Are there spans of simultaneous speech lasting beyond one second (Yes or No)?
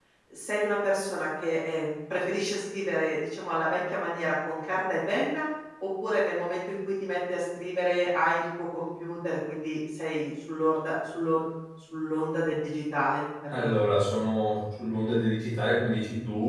No